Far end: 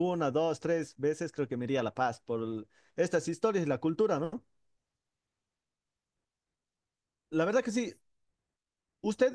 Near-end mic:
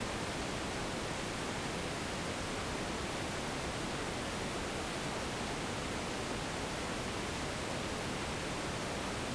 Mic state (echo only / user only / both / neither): neither